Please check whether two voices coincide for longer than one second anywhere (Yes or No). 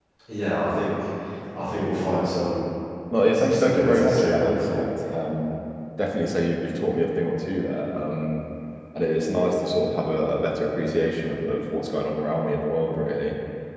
Yes